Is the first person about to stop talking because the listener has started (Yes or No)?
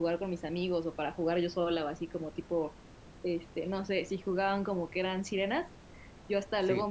No